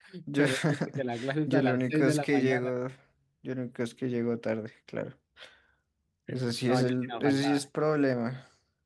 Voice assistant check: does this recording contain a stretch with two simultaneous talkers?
Yes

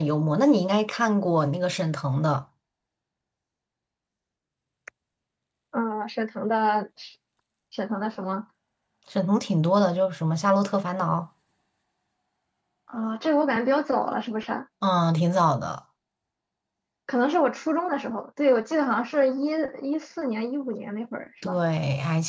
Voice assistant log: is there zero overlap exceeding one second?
Yes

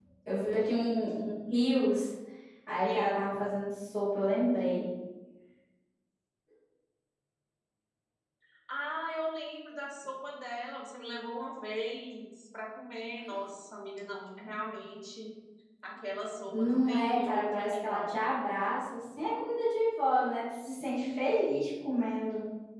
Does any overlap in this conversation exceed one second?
Yes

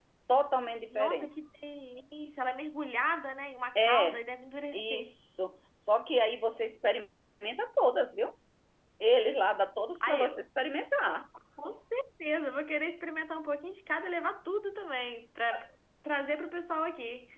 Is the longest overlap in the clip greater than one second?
No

